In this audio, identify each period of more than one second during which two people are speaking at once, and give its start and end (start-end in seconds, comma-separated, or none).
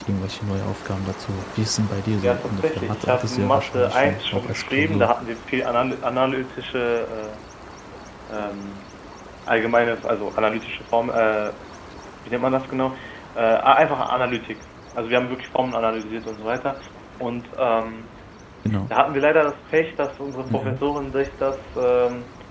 2.2-5.1